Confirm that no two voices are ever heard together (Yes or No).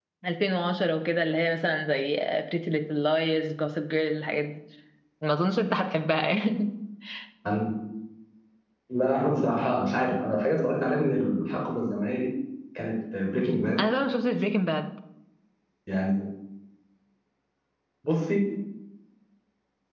Yes